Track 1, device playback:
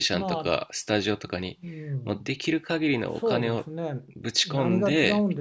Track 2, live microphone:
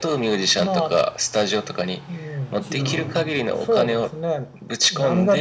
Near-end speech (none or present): present